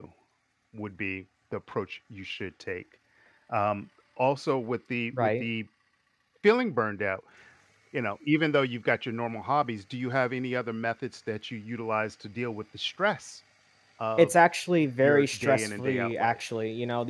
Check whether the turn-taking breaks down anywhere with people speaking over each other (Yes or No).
Yes